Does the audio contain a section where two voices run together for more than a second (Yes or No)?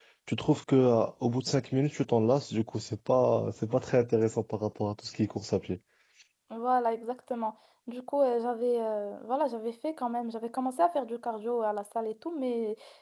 No